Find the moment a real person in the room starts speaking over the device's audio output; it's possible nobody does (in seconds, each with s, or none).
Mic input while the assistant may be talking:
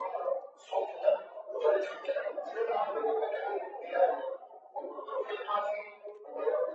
none